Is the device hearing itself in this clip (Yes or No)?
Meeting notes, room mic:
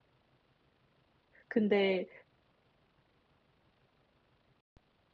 No